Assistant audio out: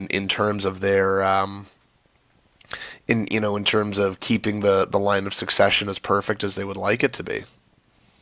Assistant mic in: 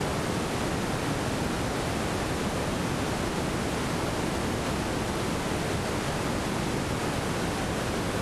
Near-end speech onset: none

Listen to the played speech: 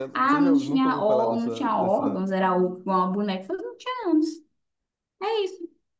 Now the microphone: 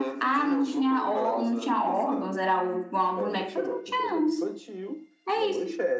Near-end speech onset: 3.2 s

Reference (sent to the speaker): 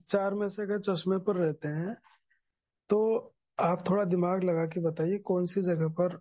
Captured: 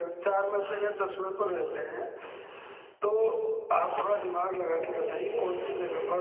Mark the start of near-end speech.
4.6 s

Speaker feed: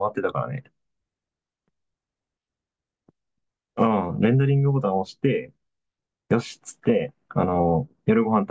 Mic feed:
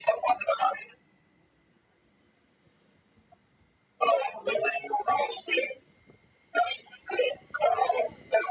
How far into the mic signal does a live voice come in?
none

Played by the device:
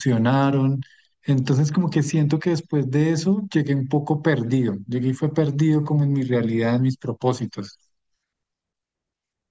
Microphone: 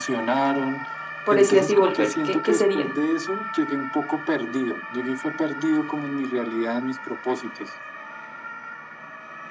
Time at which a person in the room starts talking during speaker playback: 1.2 s

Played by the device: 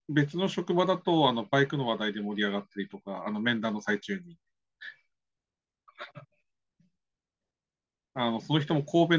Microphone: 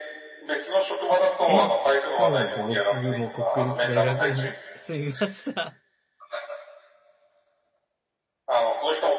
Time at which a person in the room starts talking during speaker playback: 1.5 s

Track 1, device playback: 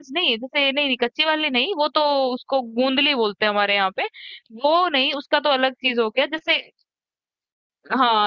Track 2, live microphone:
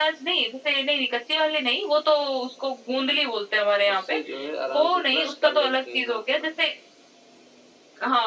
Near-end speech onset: 3.9 s

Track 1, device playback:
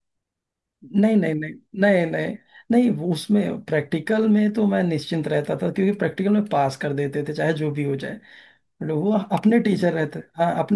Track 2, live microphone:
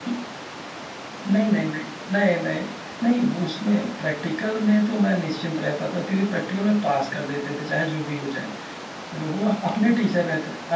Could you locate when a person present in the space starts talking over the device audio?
none

